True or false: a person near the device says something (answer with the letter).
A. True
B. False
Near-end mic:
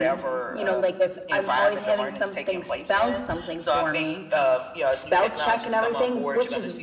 B